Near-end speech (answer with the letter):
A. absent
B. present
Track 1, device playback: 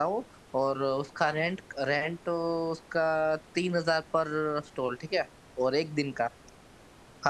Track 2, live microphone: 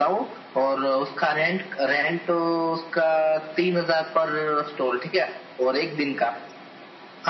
A